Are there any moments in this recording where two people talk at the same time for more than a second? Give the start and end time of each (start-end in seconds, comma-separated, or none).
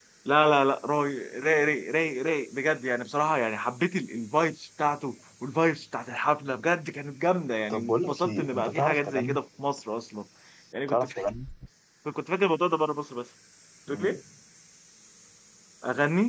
7.7-9.4